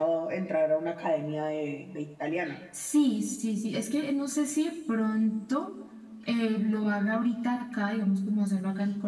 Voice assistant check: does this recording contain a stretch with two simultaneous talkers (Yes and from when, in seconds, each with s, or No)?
No